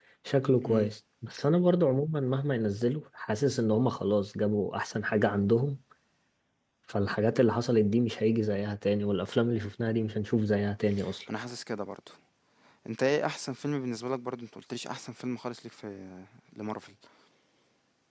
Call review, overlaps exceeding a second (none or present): none